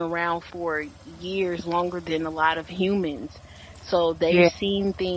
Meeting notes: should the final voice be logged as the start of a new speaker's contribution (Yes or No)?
No